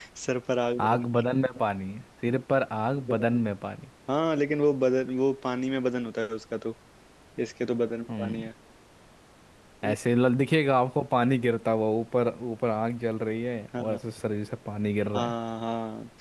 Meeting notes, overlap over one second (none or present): none